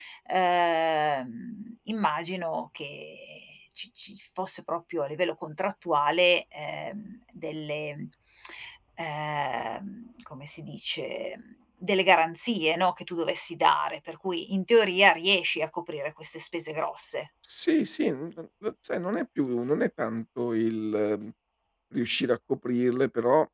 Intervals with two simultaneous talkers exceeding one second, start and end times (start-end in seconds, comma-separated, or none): none